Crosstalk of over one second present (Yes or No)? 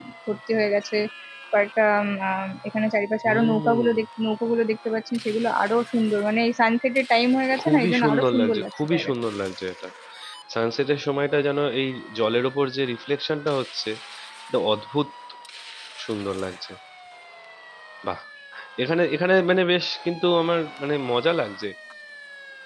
Yes